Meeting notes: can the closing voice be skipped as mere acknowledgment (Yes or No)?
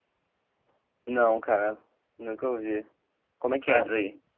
No